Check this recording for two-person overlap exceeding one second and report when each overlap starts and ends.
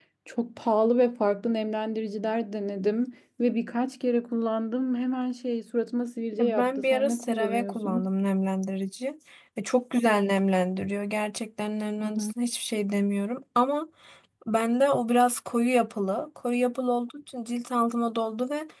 6.4-8.1

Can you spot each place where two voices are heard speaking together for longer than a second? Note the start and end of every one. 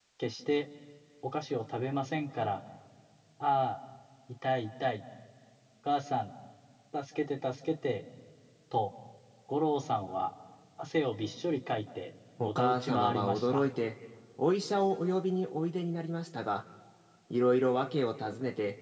12.4-13.6

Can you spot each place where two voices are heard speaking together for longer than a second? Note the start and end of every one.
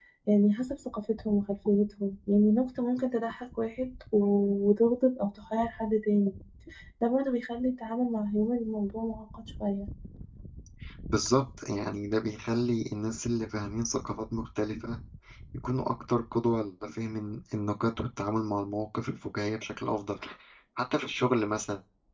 none

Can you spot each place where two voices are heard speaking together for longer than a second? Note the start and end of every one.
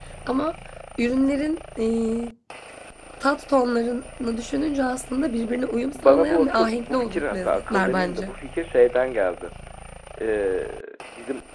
5.9-8.3

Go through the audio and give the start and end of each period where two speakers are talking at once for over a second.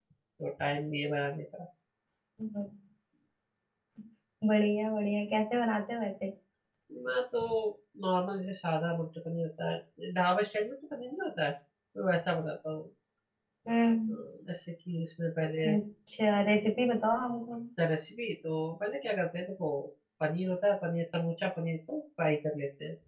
none

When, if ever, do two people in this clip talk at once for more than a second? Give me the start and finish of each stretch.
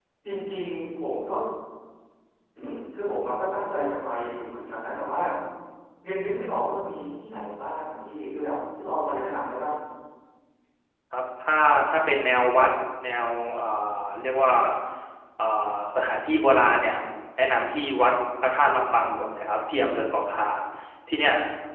none

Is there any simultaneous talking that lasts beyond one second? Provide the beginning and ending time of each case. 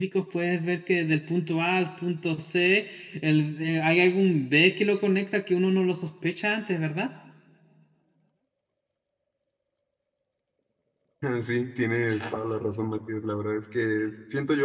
none

